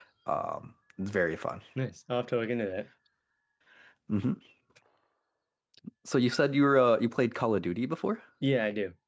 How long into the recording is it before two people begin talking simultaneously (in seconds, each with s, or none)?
none